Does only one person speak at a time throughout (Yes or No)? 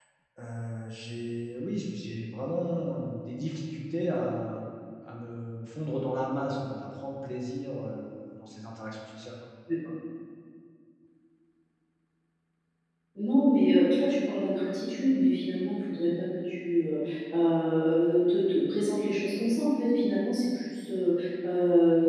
Yes